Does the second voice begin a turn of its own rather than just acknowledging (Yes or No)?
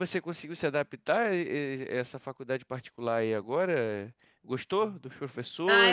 Yes